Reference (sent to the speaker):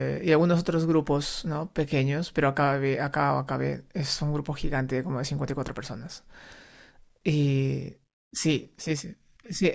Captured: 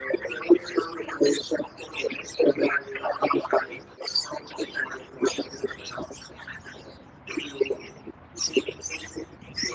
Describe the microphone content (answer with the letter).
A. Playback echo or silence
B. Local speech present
A